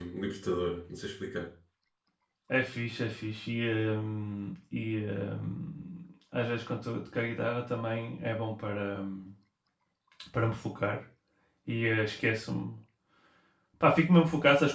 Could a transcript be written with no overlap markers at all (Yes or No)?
Yes